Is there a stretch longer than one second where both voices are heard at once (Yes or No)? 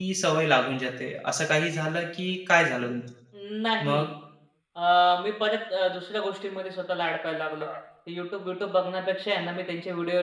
No